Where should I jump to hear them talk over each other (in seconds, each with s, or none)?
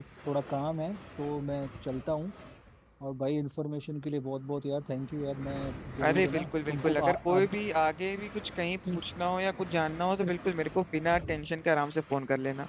6.0 s